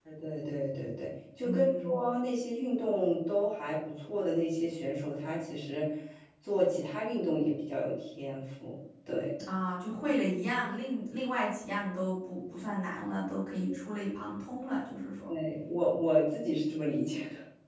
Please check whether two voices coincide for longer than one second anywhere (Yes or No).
No